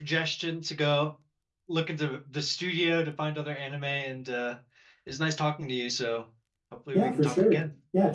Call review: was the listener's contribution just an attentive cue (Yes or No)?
No